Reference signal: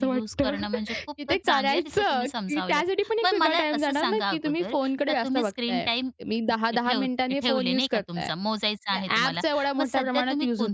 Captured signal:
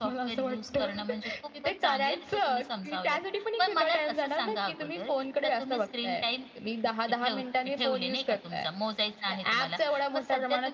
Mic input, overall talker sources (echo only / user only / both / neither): echo only